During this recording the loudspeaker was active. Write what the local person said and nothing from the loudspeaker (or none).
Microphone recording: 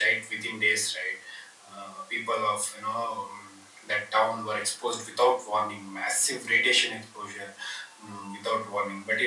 none